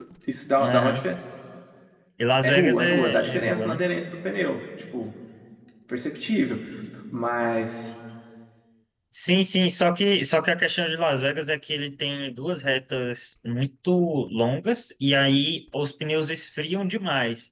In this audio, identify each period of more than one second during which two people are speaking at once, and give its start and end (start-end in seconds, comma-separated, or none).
2.4-3.8